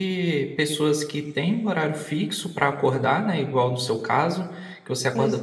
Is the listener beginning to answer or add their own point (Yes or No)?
No